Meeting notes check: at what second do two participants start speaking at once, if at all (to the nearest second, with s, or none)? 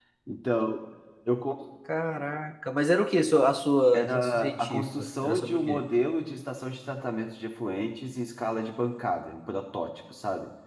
4 s